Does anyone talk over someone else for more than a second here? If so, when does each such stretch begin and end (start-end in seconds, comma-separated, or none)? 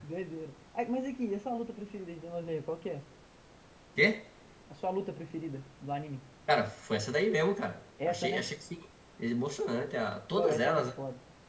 none